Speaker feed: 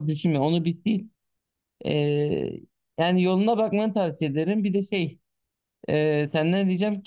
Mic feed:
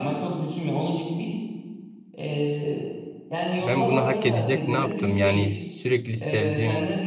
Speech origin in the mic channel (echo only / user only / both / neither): both